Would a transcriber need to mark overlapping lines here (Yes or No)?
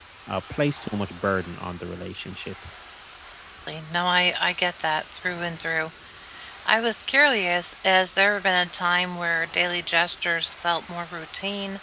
No